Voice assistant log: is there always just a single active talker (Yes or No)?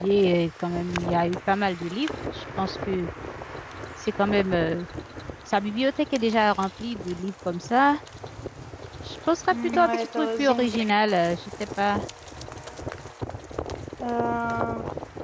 No